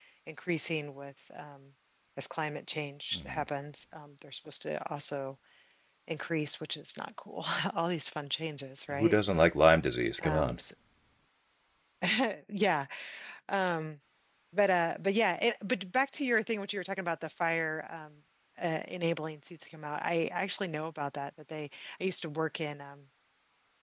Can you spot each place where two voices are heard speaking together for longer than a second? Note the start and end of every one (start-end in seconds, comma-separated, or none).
none